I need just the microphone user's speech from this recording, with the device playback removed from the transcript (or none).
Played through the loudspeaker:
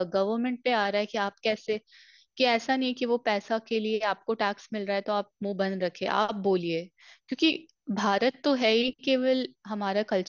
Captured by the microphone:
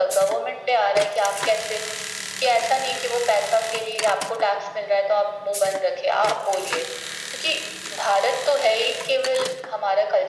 none